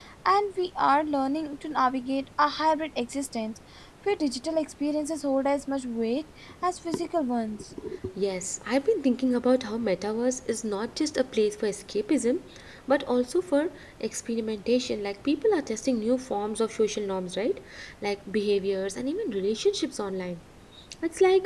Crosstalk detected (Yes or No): No